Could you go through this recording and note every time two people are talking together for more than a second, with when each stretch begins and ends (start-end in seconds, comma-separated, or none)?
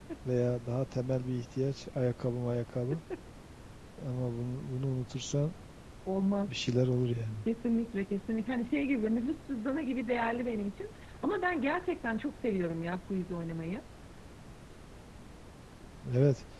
none